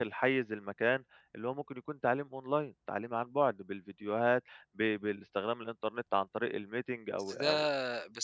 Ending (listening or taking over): taking over